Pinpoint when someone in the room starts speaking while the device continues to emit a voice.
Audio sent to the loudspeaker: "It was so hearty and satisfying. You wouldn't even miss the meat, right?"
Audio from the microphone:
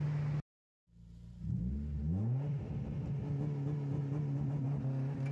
none

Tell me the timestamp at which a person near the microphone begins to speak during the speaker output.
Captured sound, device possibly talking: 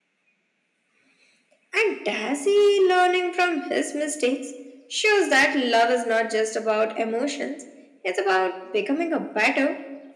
none

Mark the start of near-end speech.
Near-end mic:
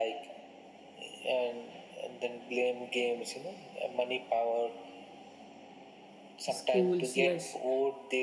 6 s

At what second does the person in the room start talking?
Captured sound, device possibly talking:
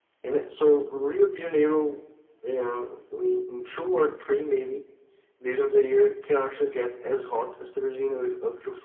none

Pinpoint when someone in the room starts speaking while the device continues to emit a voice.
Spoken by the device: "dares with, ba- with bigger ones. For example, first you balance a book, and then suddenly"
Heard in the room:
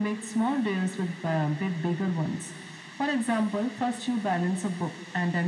none

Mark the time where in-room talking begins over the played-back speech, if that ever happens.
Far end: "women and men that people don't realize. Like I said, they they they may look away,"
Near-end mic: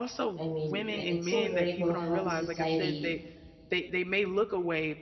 0 s

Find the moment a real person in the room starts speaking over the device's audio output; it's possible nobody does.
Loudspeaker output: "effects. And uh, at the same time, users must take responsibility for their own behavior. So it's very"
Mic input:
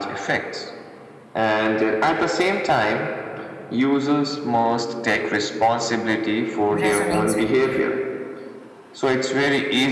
7 s

